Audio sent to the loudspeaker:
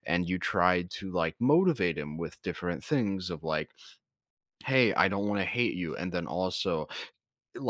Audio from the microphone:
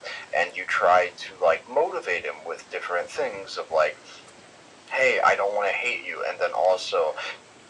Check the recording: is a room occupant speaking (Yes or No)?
No